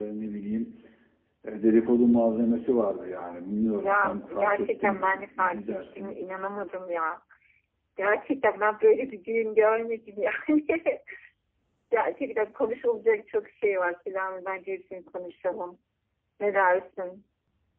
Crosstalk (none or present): present